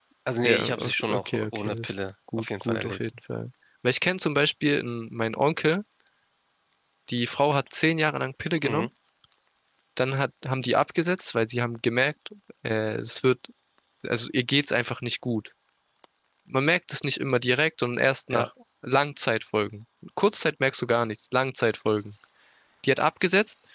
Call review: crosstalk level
present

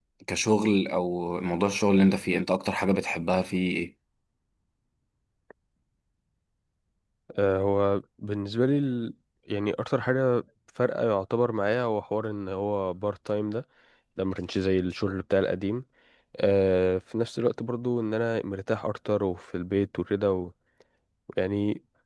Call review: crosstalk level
none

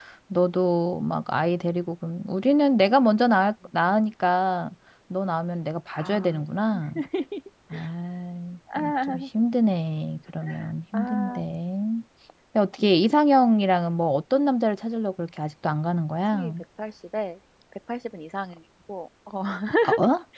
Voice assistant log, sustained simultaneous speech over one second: none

